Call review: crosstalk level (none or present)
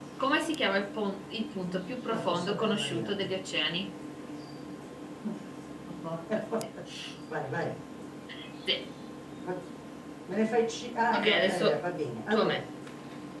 present